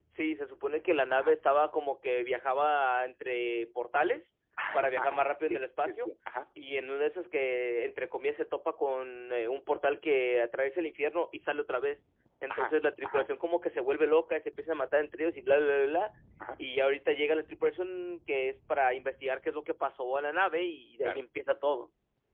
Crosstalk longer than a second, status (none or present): present